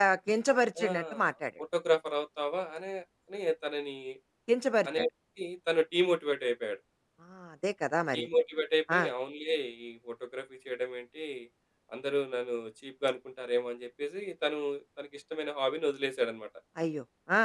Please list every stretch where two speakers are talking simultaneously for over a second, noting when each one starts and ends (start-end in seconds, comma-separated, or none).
none